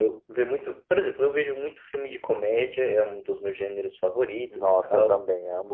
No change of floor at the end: No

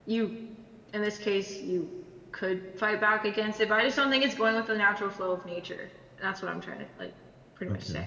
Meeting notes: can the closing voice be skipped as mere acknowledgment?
No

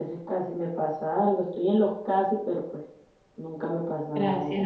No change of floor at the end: No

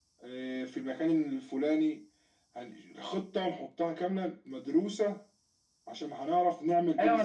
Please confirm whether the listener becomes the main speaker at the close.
Yes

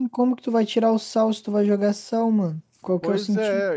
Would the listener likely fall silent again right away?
No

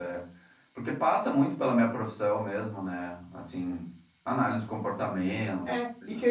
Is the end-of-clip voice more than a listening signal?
Yes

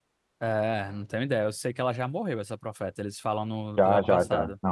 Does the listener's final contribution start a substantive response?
Yes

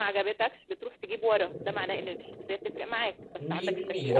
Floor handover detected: Yes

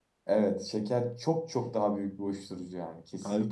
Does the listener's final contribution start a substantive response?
Yes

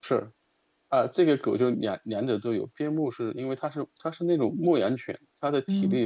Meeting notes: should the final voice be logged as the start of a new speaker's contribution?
No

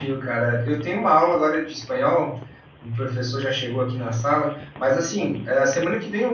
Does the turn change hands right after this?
No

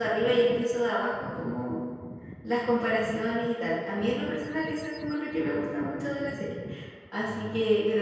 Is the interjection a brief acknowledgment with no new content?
Yes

